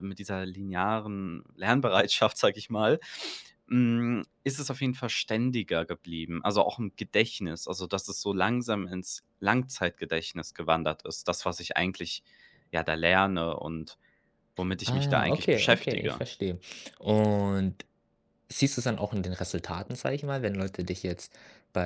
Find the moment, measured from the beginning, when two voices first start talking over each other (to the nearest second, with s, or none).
15 s